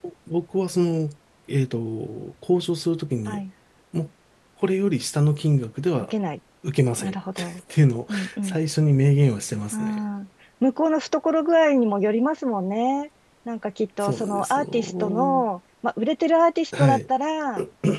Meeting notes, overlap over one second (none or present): present